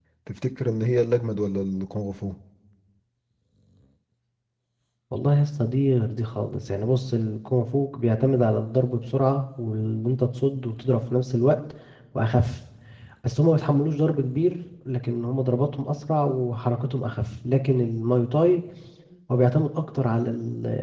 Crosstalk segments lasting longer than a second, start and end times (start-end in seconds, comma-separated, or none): none